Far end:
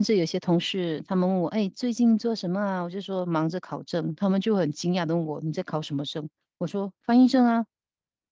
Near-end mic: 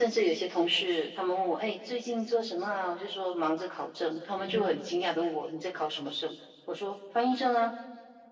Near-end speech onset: 4.4 s

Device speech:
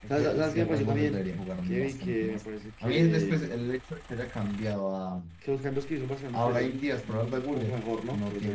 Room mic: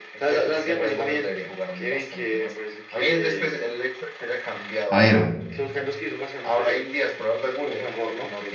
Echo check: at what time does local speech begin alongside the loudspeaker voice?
4.9 s

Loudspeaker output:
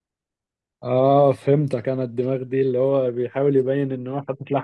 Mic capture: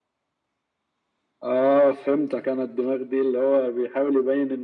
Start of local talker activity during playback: none

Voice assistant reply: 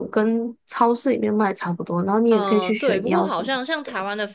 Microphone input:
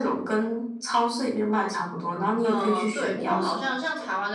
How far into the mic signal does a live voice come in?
none

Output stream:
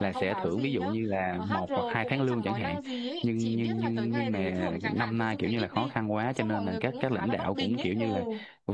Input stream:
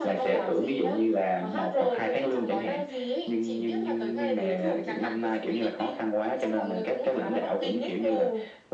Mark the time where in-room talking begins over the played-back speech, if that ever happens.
none

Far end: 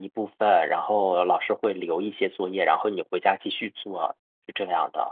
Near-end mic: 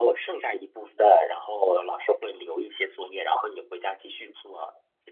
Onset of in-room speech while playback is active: none

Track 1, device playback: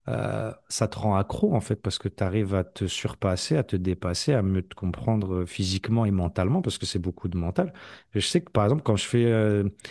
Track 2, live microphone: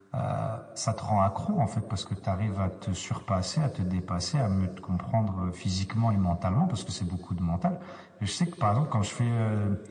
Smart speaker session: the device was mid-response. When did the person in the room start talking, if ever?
none

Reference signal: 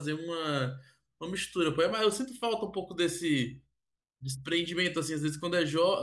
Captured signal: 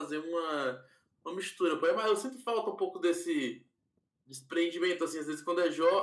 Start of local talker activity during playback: none

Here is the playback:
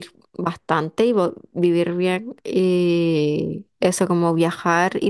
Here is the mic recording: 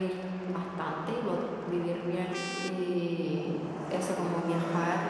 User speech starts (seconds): none

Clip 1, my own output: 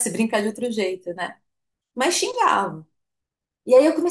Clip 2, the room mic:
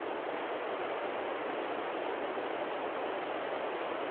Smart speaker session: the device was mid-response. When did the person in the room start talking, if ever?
none

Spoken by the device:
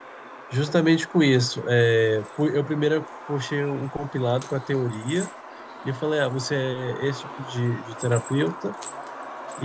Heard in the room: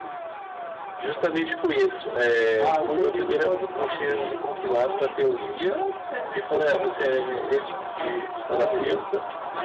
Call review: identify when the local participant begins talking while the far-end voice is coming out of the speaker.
2.6 s

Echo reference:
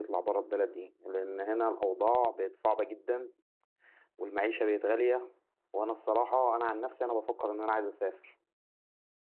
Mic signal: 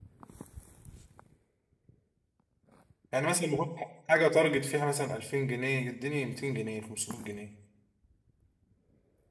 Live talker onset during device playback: 3.1 s

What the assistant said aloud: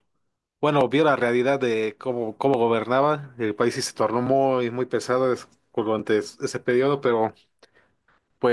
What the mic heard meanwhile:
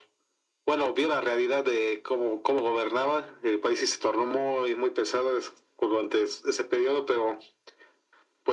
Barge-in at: none

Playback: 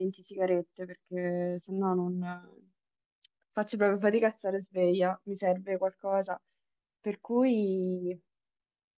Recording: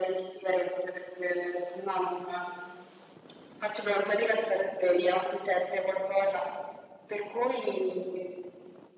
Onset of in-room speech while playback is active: none

